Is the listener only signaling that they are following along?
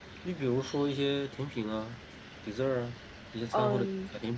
No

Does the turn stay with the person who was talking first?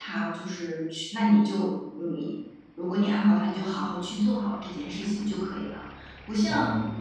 Yes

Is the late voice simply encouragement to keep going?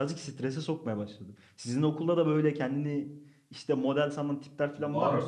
No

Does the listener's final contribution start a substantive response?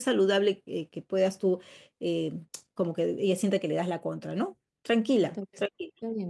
Yes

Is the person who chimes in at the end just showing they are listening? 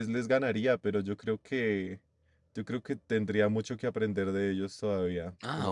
No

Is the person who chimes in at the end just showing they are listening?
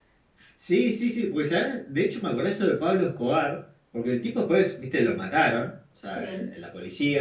Yes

